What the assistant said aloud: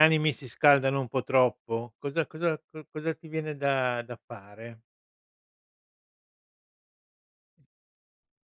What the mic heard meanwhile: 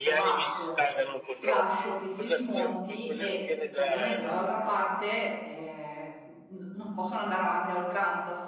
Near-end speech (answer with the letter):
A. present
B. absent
A